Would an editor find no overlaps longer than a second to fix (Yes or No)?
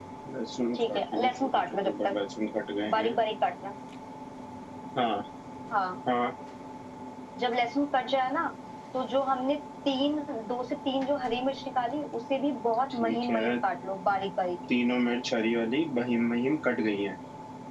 No